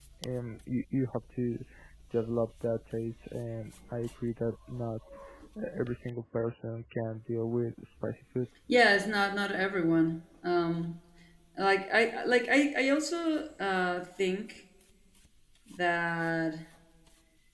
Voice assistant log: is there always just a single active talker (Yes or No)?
Yes